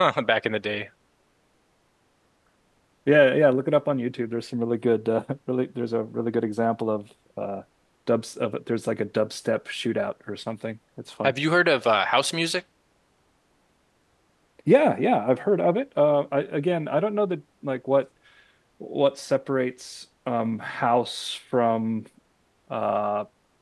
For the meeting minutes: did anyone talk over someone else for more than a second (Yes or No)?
No